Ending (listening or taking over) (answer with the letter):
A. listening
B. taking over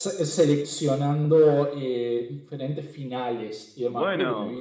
A